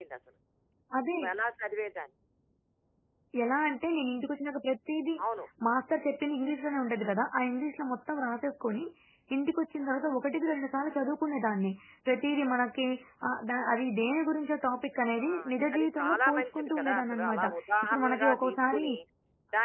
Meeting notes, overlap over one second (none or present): present